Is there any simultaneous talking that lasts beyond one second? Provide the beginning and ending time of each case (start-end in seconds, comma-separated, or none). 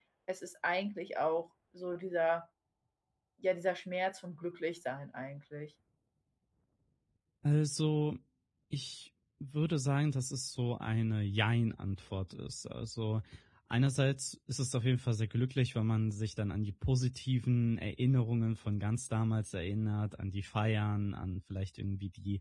none